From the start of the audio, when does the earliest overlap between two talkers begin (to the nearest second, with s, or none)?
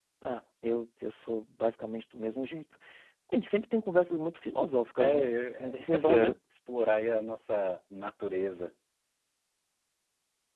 5 s